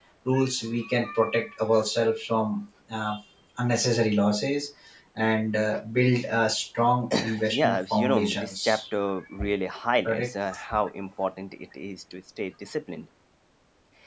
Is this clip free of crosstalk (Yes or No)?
No